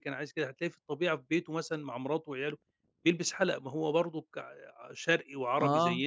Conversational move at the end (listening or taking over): listening